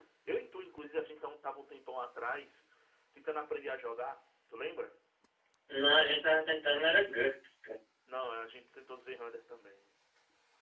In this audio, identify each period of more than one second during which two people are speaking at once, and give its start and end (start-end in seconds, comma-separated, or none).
none